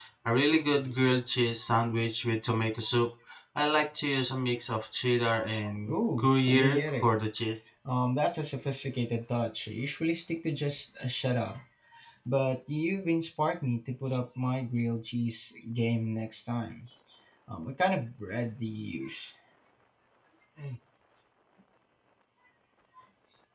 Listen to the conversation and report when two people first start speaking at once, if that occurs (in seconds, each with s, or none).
5.9 s